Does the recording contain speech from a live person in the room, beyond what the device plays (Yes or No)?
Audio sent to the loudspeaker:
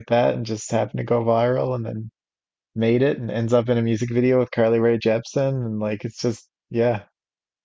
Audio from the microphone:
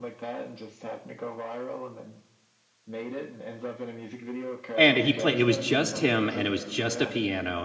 Yes